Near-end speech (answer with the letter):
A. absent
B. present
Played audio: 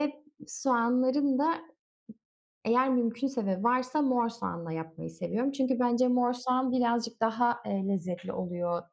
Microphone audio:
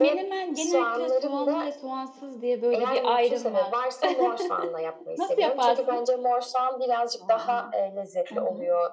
B